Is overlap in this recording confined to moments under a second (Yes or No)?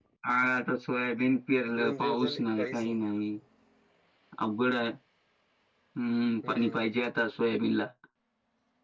No